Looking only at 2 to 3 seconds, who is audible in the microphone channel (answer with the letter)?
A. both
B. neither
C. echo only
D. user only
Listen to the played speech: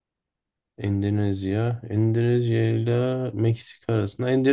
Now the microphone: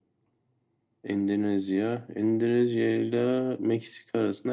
C